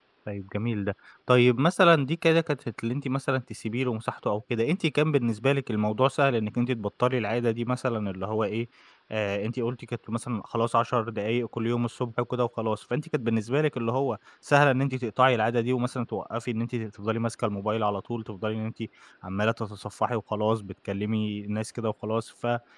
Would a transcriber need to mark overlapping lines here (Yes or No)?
No